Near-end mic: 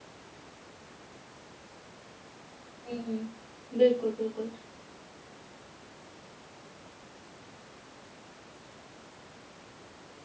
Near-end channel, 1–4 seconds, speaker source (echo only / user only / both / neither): user only